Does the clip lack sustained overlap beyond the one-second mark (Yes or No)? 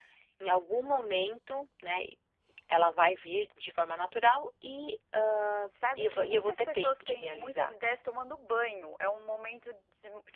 No